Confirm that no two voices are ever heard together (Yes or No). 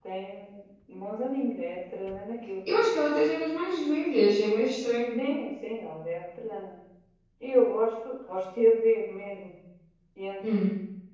Yes